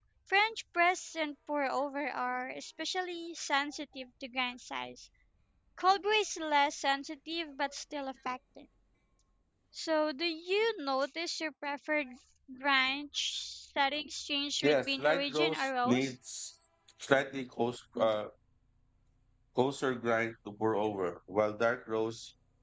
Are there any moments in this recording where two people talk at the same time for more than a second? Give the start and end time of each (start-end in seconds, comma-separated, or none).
14.6-16.1